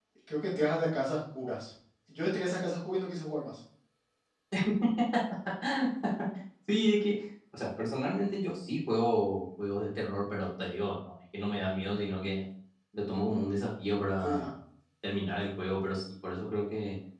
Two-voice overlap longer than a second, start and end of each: none

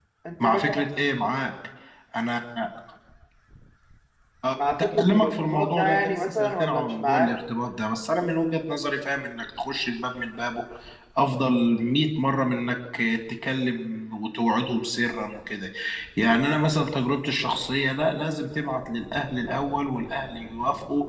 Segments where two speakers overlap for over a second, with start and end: 4.5-7.3

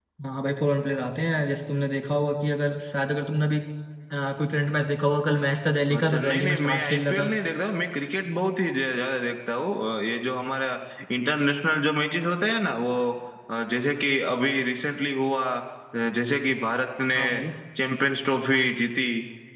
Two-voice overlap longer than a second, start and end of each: 5.9-7.3

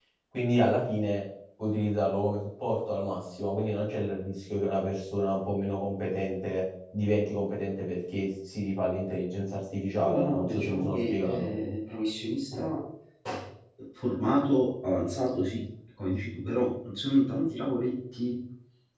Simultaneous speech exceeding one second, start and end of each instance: 10.0-11.5

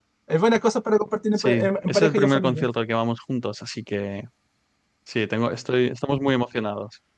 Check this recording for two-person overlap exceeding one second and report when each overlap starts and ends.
1.4-2.7

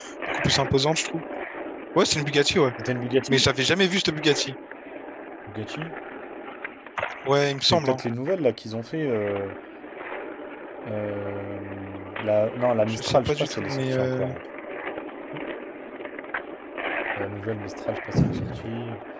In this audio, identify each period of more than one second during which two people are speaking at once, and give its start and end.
12.9-14.3

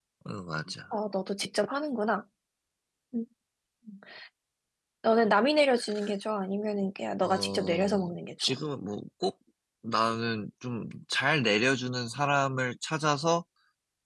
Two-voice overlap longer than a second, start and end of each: 7.2-8.5

